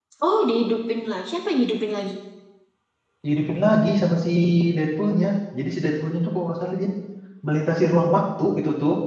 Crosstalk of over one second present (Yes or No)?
No